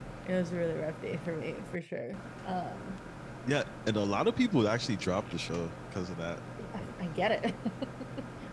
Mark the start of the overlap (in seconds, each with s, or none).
none